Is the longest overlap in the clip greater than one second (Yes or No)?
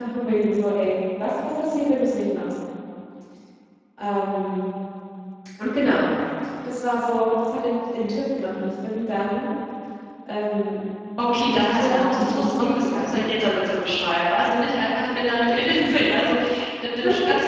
Yes